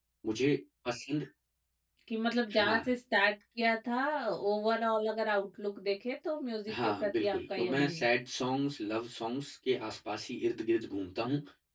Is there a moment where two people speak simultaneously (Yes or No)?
Yes